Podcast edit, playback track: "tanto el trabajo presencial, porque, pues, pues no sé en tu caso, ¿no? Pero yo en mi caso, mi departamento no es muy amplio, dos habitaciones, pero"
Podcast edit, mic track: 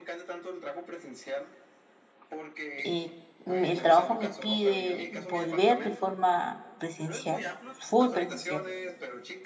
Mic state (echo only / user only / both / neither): both